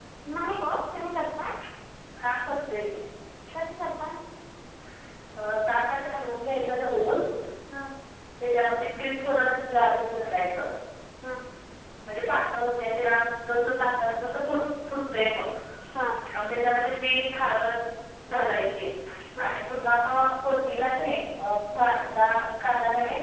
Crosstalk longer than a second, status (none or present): none